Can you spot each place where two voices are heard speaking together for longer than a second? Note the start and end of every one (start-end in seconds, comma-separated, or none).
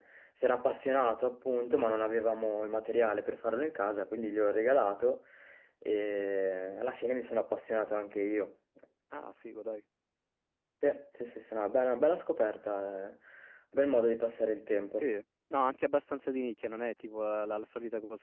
none